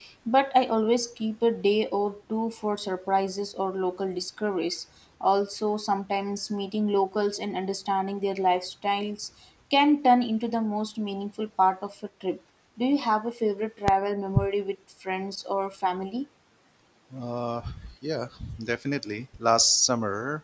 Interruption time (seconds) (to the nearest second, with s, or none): none